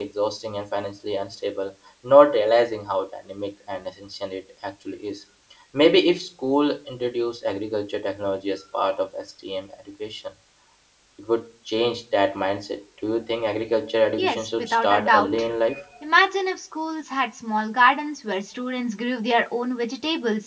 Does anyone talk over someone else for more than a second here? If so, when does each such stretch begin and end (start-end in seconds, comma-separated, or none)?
14.2-15.5